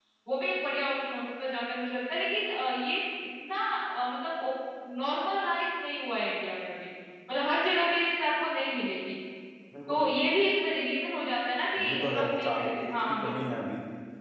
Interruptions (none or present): present